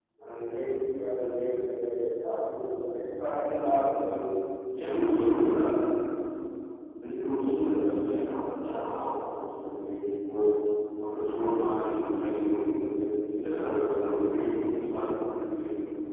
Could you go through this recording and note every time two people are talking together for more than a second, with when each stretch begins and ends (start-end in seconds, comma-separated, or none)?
none